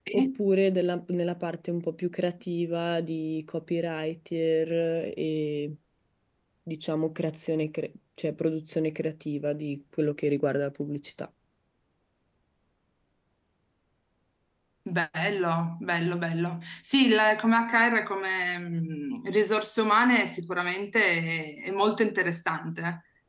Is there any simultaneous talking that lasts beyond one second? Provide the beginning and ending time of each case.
none

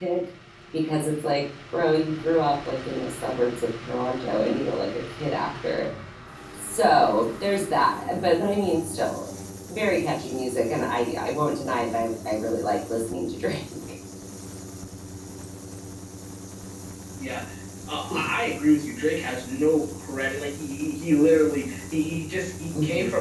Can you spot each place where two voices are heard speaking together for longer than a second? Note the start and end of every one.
none

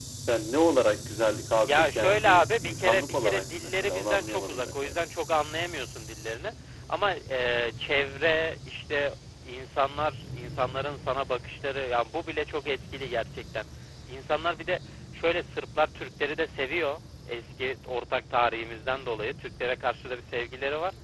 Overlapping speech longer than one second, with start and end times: 1.5-5.0

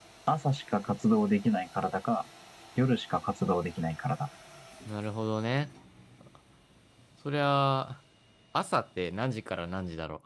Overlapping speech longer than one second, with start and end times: none

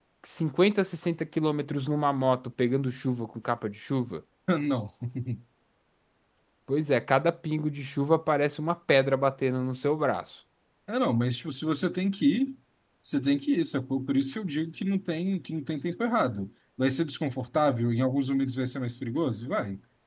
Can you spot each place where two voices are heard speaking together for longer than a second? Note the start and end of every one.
none

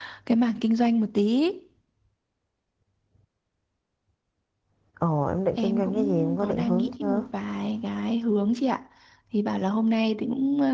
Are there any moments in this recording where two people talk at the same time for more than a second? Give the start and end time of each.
5.6-7.2

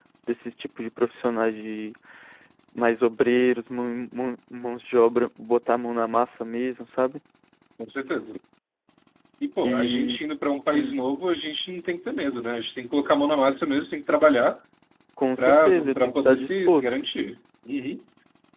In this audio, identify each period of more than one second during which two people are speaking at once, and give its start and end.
15.4-16.8

